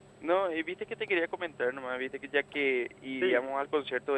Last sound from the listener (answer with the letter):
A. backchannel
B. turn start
A